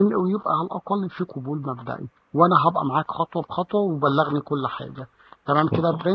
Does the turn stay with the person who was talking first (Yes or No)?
No